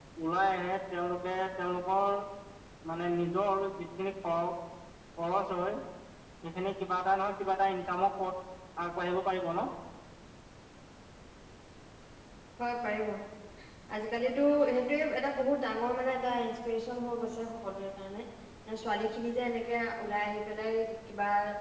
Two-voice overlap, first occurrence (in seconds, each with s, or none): none